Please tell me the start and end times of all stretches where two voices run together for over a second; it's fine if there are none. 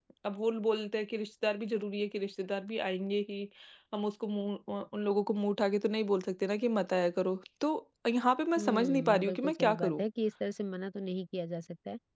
8.6-10.0

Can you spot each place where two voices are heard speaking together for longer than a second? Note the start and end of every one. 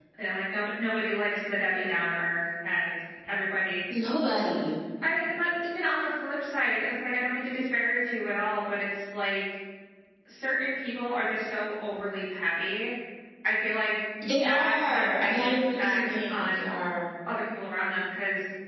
14.4-16.7

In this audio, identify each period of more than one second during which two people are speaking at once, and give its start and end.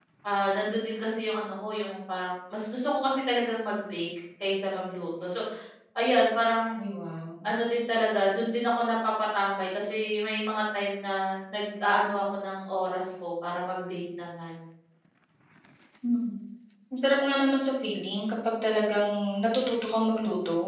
none

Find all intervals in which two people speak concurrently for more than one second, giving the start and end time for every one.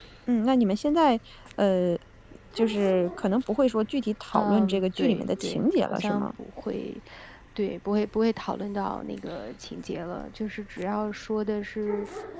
4.3-6.3

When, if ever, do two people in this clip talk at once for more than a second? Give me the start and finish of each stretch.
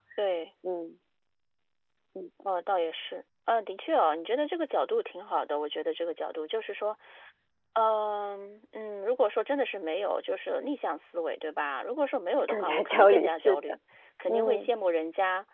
12.5-13.8

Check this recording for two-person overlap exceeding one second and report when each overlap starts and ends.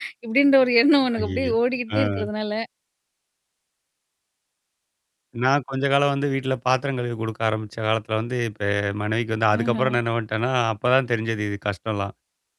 none

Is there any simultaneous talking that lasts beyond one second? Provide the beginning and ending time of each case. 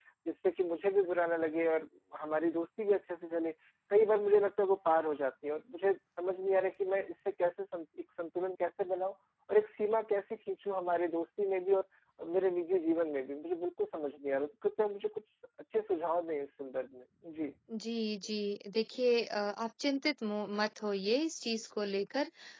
none

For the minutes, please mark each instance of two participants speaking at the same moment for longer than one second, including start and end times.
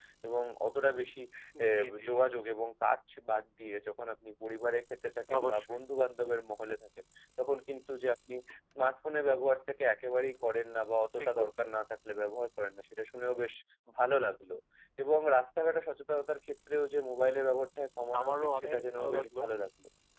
18.2-19.4

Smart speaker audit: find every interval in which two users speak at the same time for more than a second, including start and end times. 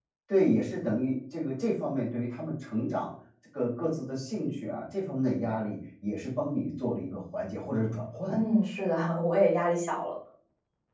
none

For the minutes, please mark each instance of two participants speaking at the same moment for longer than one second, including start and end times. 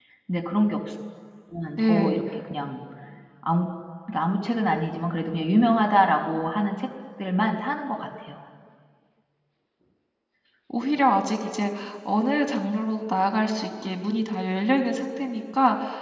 none

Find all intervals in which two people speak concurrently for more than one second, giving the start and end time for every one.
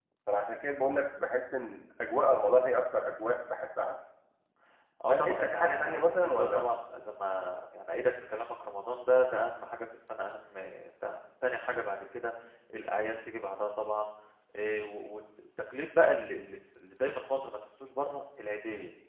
5.1-6.7

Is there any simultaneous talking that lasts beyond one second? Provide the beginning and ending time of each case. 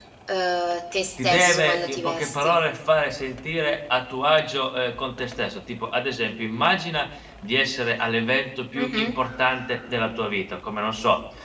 1.0-2.6

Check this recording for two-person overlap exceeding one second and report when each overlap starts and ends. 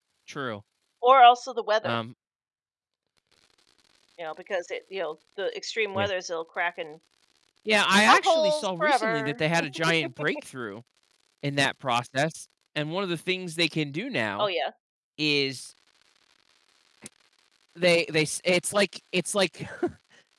8.0-9.4

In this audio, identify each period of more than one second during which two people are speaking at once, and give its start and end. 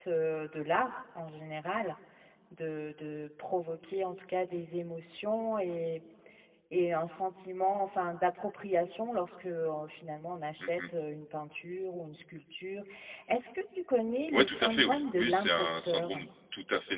14.3-16.2

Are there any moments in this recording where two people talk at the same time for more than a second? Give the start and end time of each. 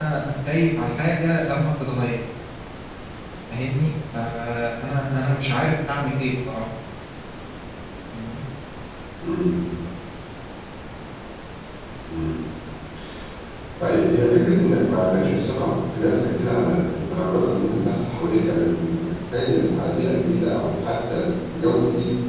none

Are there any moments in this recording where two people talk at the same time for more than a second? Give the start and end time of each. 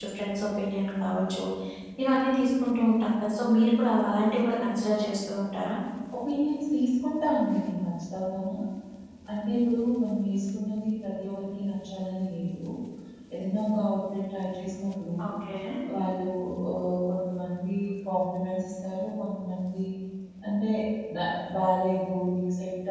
none

